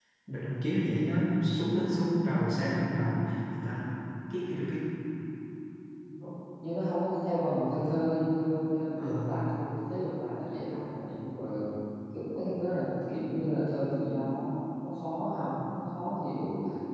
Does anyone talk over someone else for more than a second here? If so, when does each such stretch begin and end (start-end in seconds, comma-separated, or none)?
none